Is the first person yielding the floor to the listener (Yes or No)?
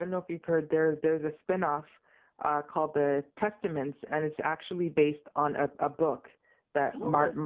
No